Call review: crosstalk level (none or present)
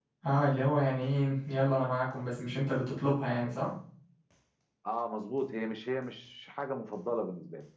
none